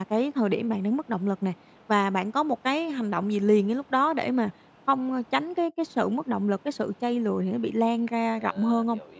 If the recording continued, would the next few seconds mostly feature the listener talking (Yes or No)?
Yes